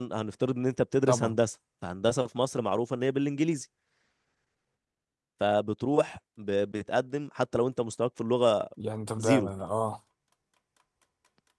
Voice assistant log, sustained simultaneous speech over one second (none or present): none